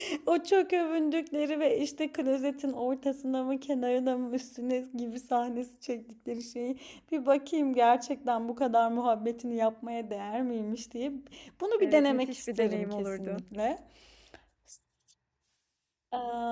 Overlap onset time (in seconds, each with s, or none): 11.8 s